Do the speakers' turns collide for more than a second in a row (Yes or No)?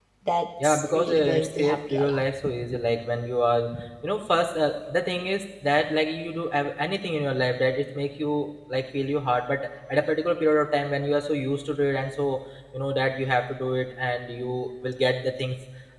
Yes